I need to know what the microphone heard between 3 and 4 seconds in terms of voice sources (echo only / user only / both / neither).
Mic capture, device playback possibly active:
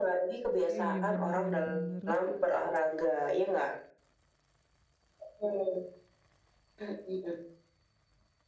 echo only